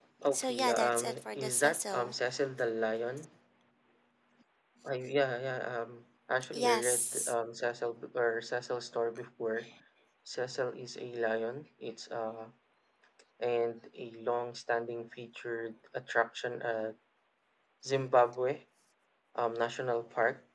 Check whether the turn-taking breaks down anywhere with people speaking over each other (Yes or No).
Yes